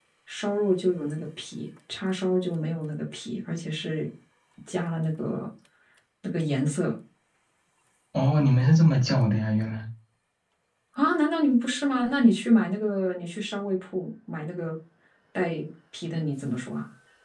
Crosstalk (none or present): none